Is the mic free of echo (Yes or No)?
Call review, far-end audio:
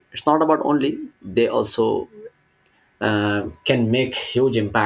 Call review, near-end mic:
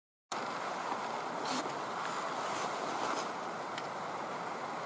Yes